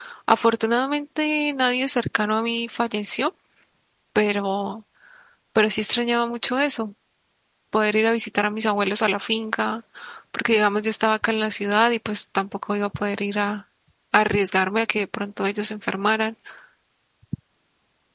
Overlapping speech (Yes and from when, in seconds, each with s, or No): No